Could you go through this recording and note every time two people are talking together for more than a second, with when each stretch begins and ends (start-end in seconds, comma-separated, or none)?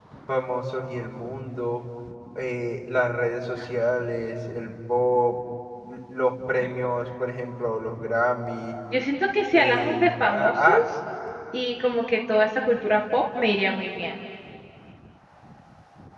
9.5-10.8